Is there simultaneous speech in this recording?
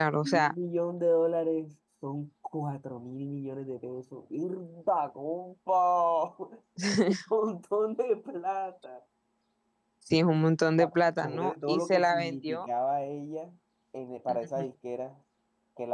Yes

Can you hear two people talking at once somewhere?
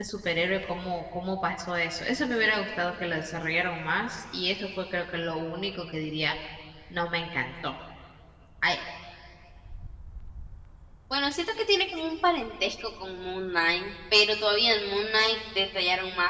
No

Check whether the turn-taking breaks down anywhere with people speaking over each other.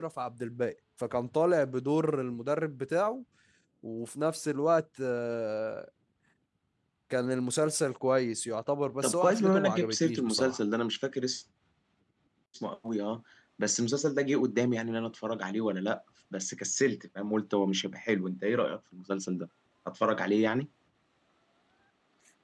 Yes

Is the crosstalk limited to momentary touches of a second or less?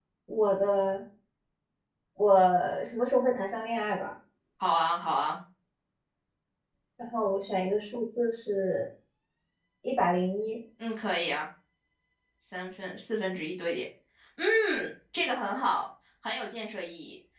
Yes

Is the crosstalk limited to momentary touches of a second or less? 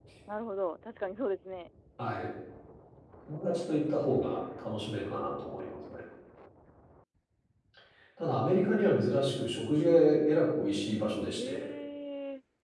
Yes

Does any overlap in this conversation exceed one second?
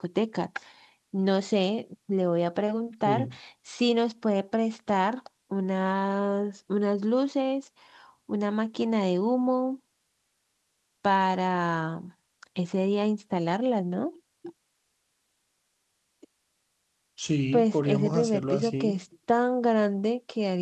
Yes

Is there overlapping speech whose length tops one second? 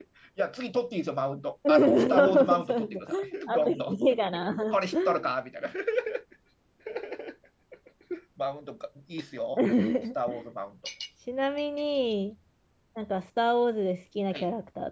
Yes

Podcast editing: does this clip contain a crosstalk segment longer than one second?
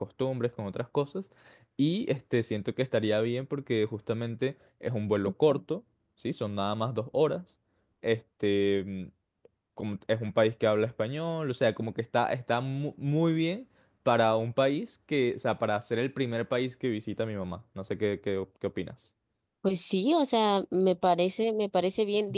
No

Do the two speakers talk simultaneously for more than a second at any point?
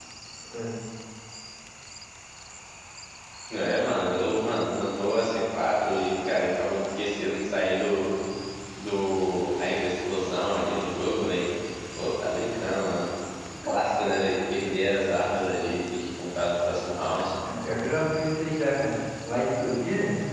No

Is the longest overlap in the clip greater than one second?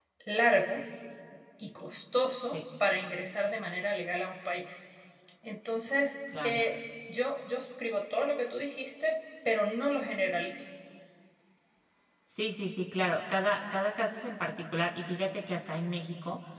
No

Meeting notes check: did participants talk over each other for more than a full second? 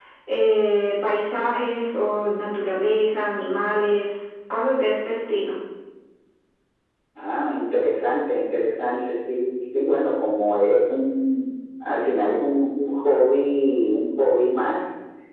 No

